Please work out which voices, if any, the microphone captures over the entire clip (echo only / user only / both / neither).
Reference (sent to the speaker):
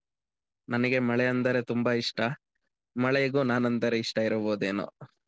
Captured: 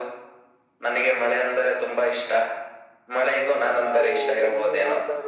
both